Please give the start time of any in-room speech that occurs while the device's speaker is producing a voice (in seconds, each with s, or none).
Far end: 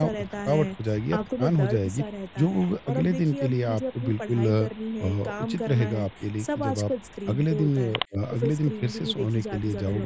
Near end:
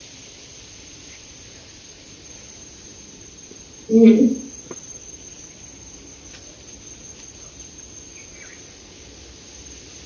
3.9 s